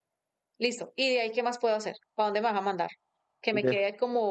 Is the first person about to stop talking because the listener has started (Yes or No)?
No